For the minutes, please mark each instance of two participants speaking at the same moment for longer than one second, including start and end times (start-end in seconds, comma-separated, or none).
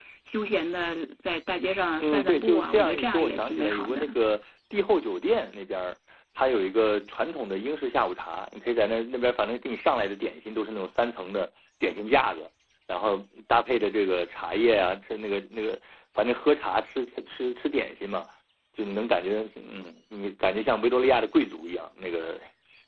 2.0-4.2